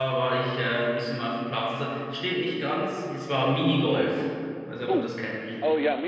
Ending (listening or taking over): taking over